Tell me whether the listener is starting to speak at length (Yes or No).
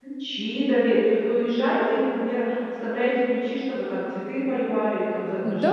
Yes